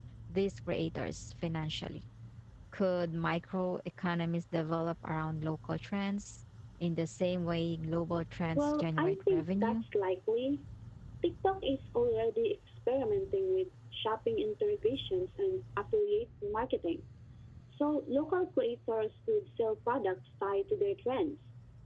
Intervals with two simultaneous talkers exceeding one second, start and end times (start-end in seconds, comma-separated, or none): 8.6-9.8